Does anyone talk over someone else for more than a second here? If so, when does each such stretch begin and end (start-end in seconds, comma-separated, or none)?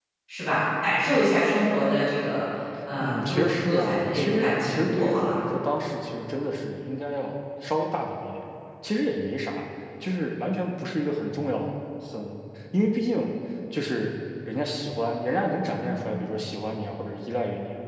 3.0-5.4